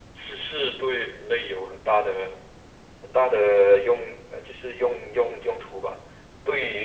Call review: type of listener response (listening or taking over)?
listening